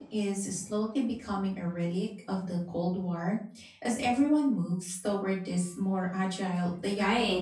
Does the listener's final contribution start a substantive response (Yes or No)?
Yes